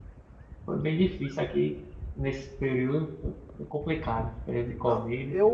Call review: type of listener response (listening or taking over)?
taking over